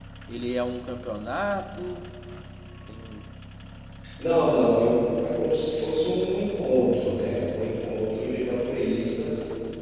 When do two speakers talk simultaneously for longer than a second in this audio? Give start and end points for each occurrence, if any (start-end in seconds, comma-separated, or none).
none